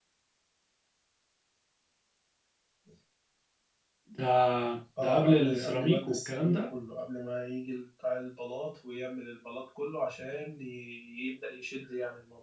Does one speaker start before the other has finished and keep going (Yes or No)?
Yes